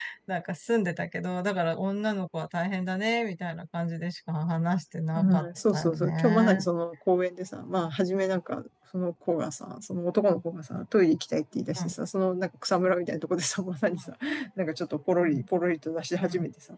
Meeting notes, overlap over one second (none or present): present